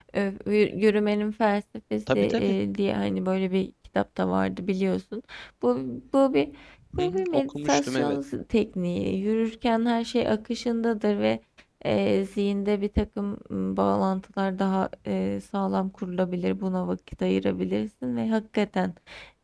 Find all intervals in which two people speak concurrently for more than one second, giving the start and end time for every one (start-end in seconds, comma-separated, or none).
7.0-8.2